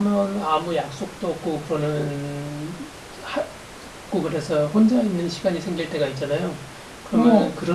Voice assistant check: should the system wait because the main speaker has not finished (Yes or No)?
Yes